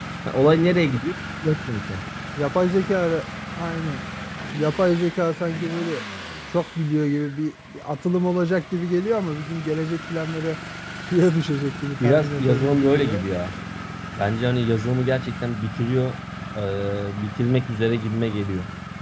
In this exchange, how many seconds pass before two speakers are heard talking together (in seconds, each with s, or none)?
12.0 s